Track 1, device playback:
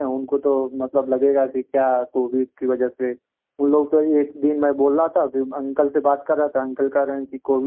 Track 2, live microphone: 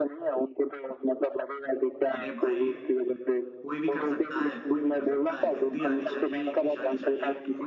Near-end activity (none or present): present